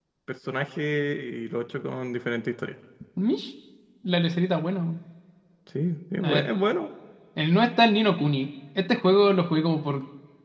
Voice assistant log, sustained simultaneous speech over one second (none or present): none